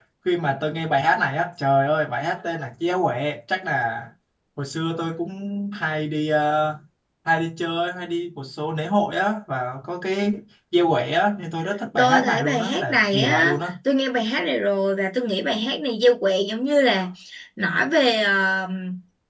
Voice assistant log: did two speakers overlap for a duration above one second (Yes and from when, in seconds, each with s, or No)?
Yes, from 12.0 s